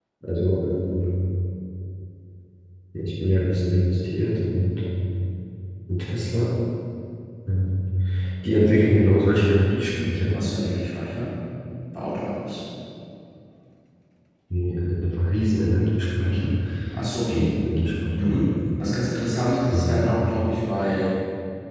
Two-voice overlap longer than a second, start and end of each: none

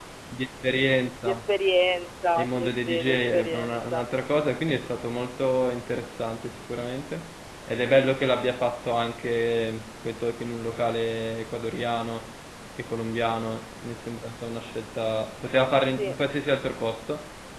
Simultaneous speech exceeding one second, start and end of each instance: 2.4-4.0

